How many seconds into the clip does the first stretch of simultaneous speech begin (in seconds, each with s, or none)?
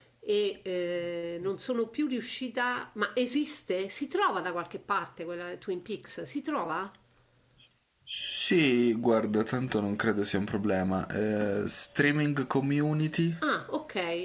none